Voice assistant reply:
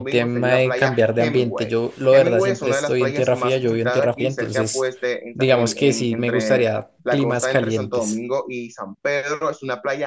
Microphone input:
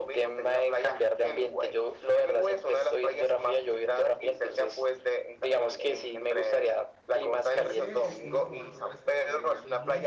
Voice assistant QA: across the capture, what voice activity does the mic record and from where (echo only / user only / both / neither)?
both